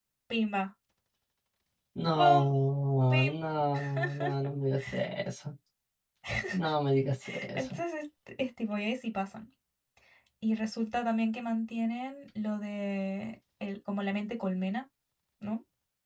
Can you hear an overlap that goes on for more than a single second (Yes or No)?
No